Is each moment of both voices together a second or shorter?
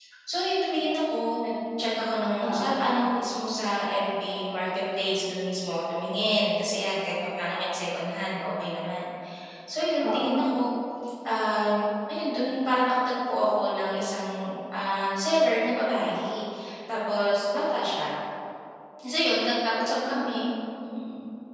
Yes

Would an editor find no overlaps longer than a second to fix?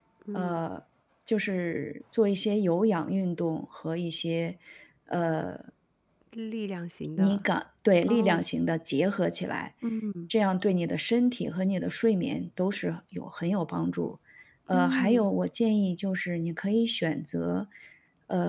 Yes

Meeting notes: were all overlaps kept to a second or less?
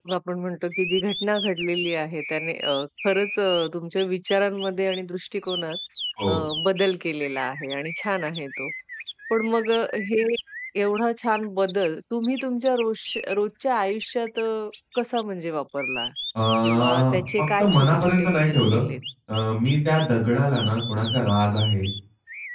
No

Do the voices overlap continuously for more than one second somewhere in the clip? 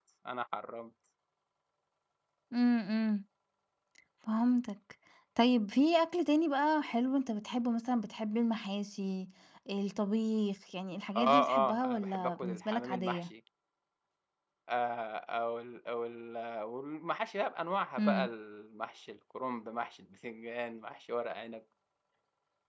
Yes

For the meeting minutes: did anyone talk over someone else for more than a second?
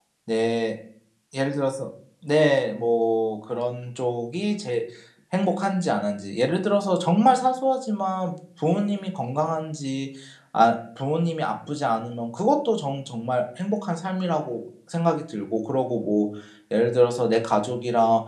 No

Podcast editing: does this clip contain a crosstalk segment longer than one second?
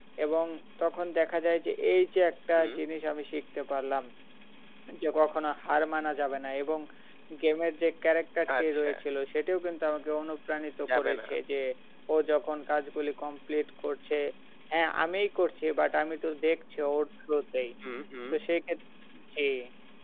No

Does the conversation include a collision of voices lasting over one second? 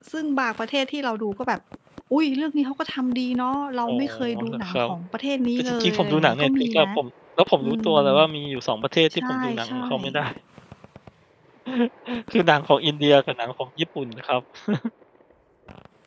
Yes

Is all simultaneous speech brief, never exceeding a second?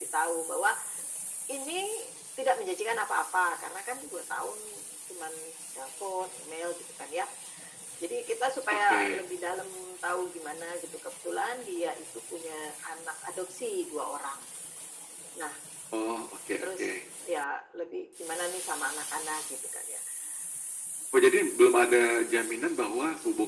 Yes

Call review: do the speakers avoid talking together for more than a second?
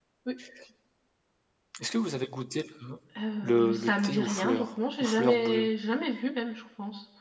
No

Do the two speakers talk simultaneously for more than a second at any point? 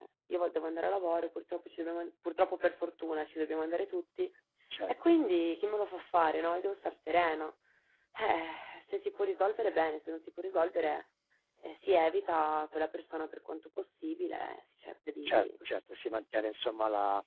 No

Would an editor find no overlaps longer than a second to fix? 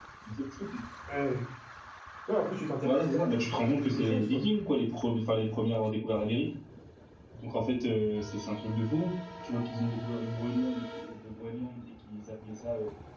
No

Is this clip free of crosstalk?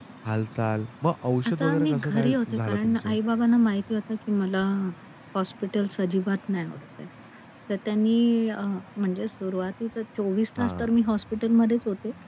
No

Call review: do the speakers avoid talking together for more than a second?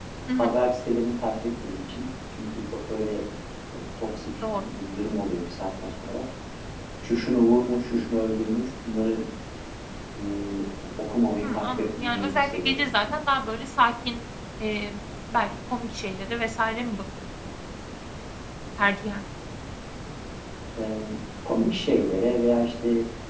No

